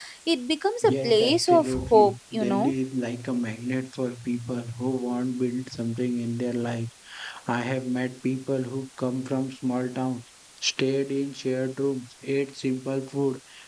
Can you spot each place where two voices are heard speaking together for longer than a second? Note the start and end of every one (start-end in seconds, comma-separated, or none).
0.8-2.7